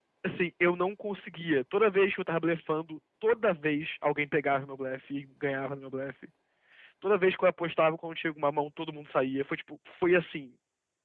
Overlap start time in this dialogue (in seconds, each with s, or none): none